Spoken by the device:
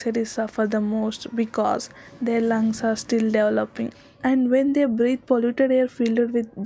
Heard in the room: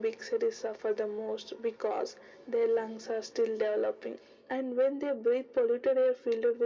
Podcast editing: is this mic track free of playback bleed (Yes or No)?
No